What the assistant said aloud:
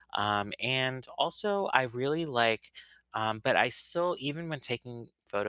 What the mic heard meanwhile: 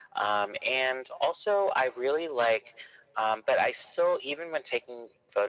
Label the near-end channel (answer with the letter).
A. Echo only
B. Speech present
A